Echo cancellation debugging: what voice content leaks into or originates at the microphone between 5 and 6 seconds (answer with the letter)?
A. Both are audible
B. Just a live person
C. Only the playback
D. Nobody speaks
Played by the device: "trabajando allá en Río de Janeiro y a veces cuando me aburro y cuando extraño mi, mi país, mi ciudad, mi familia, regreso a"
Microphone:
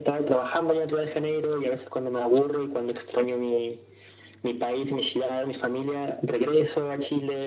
C